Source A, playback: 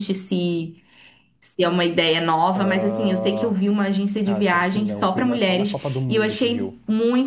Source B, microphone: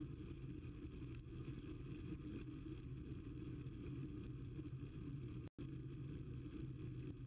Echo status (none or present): none